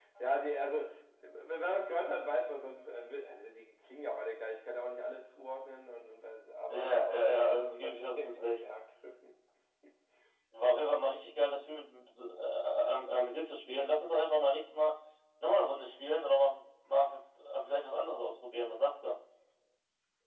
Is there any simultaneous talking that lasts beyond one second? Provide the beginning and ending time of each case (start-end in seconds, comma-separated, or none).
6.7-8.6